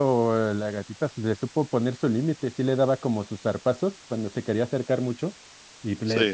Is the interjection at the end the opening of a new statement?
No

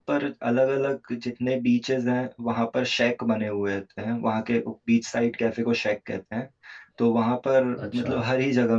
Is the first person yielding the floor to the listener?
No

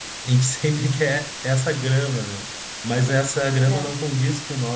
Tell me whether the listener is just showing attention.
Yes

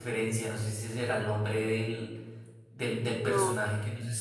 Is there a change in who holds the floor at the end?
No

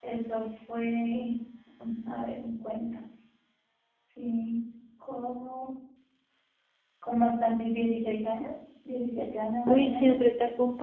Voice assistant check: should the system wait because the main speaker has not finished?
No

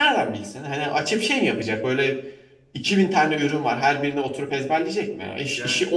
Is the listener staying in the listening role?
Yes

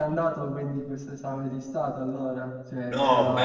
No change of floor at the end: No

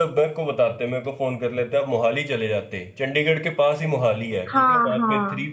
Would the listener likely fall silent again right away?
Yes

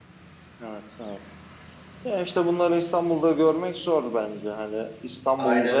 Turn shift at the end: No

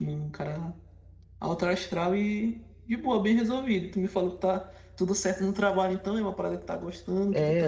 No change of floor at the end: No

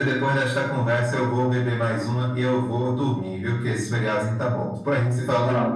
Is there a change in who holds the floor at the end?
Yes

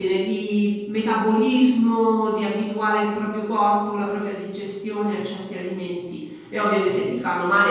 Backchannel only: Yes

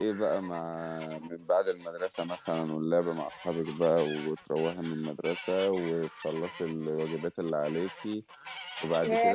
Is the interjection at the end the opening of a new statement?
Yes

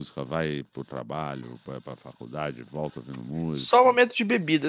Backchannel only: No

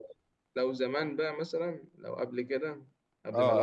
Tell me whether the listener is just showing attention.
No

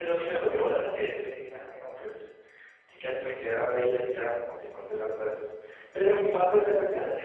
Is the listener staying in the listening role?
Yes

